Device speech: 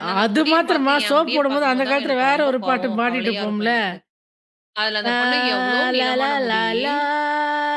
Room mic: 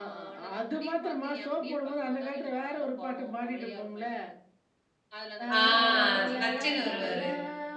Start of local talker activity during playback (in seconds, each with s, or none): 5.6 s